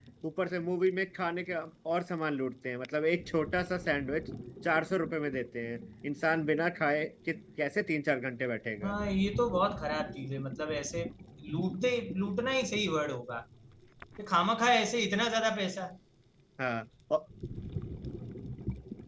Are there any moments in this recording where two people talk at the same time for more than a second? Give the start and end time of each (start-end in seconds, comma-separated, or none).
none